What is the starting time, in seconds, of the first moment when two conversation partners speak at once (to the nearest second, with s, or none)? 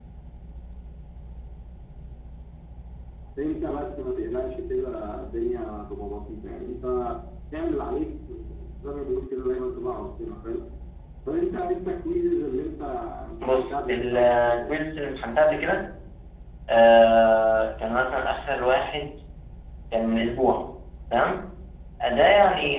13 s